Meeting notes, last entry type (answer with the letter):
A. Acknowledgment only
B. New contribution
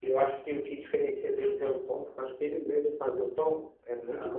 B